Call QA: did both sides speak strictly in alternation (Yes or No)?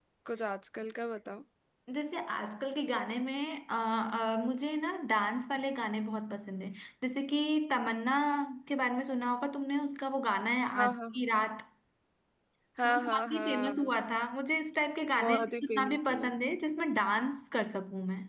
No